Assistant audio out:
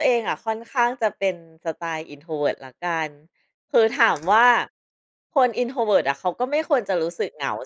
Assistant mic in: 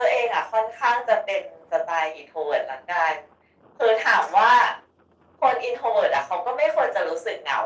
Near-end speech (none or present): none